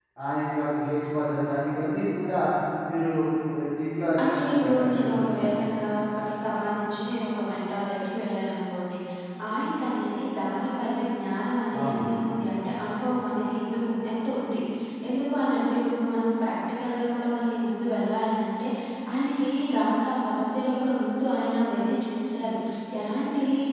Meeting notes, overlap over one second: present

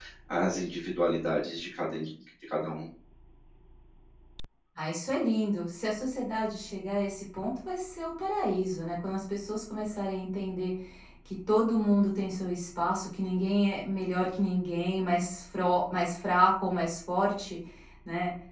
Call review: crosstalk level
none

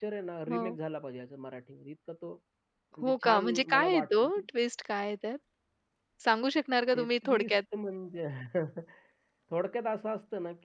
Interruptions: present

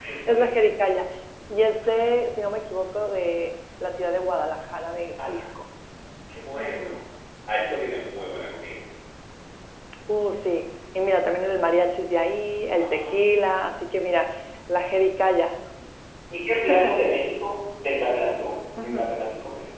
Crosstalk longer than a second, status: none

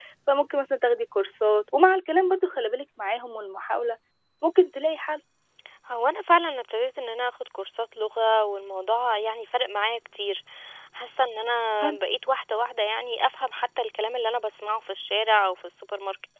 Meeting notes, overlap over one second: none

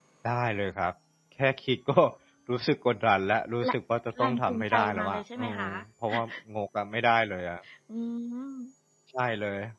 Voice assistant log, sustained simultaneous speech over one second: present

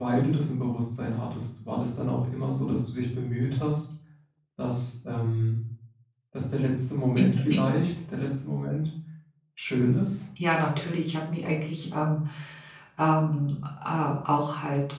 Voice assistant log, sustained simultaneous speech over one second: none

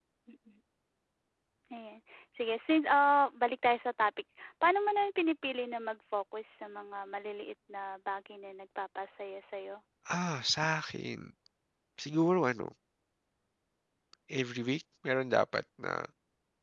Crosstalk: none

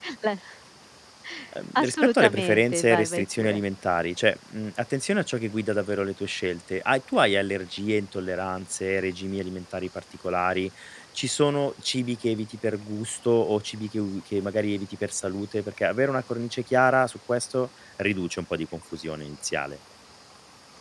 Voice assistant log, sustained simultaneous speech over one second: present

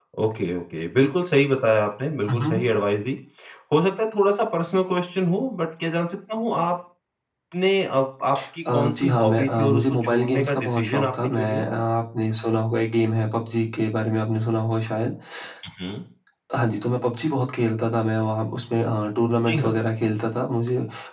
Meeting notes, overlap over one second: present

